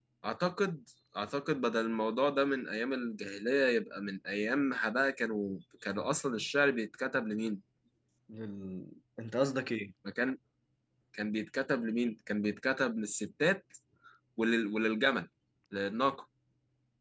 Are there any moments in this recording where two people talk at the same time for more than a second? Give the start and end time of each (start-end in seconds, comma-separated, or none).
none